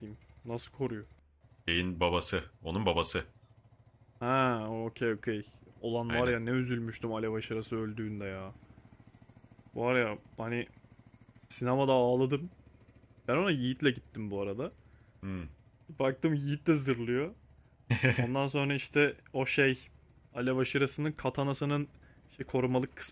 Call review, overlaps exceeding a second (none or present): none